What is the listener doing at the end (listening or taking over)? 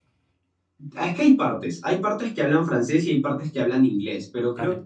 listening